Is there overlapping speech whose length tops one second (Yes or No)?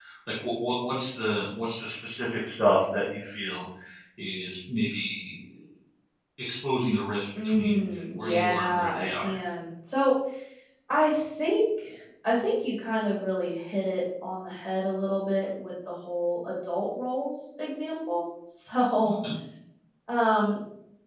Yes